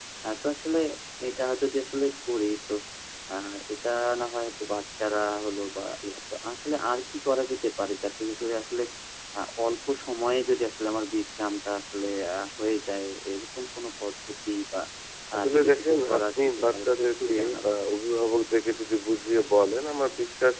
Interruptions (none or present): present